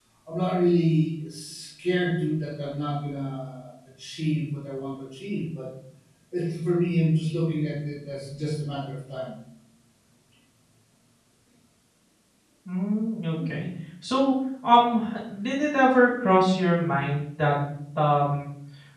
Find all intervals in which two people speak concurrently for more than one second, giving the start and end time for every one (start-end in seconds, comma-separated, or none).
none